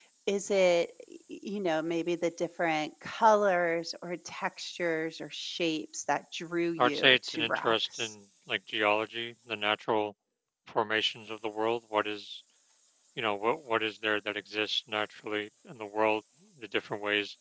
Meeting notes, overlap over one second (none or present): present